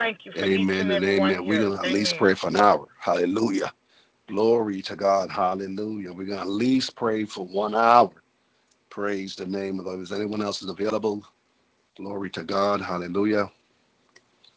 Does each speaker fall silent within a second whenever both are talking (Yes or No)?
No